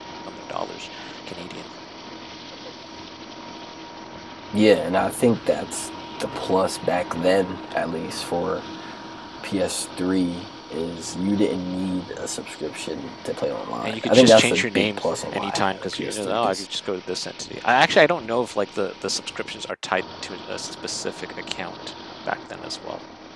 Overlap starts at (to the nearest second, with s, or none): 14 s